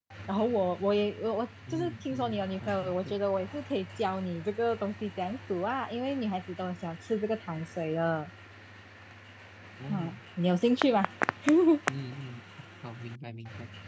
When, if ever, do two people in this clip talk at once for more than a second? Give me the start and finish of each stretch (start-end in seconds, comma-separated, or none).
1.7-3.1